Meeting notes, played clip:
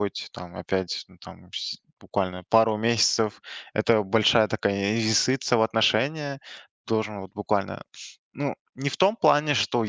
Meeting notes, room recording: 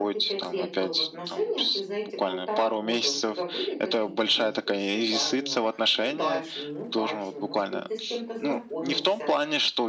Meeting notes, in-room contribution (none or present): present